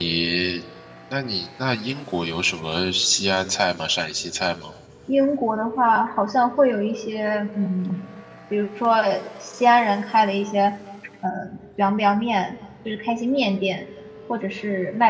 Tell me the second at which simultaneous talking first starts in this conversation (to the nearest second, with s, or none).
none